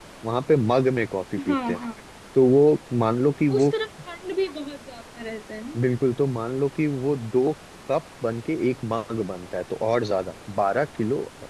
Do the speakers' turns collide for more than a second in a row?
No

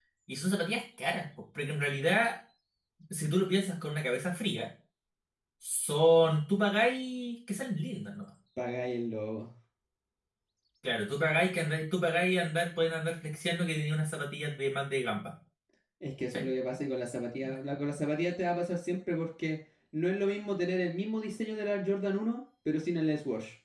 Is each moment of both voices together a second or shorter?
Yes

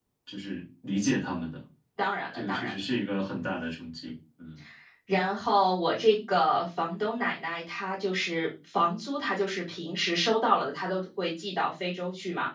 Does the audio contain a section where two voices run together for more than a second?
No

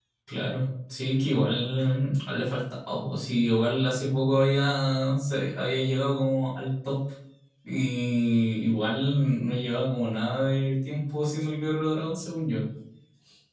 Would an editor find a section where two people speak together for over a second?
No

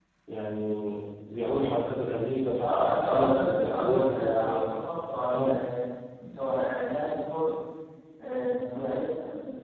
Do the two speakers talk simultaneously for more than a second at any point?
Yes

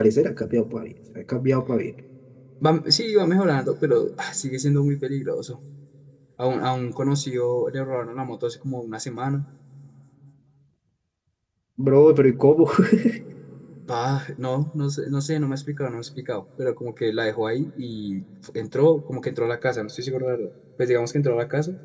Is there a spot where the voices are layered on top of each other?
No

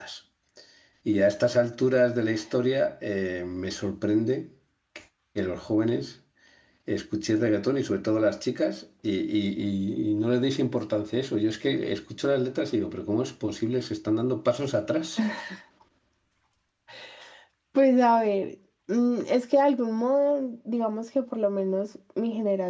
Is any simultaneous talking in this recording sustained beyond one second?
No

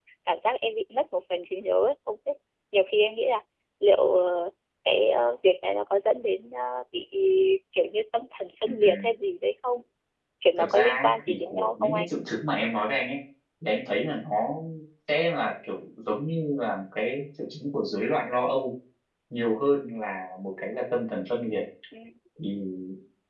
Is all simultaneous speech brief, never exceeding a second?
No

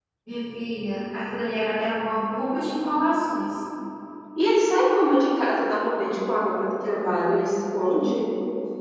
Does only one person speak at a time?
Yes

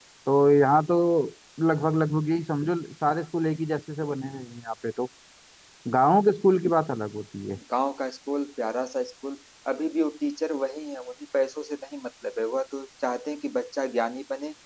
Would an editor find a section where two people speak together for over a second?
No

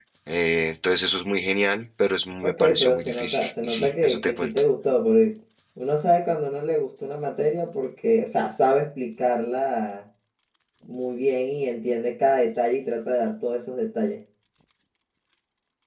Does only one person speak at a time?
No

